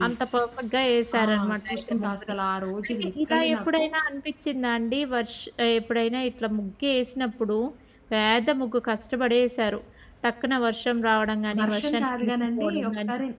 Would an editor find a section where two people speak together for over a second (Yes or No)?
Yes